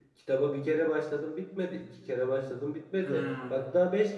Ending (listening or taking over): listening